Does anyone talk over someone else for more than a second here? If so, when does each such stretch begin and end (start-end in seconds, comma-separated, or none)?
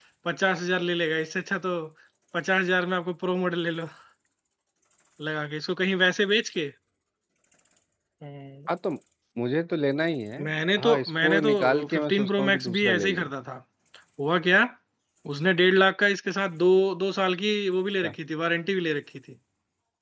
10.8-13.3